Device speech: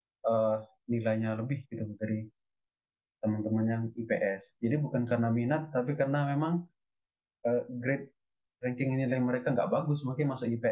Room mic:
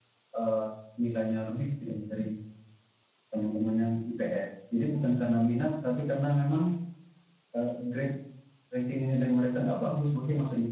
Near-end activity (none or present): none